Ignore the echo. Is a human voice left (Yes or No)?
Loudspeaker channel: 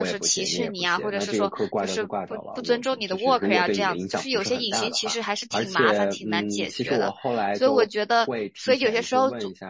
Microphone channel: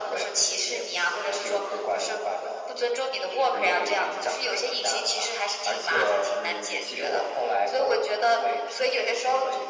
No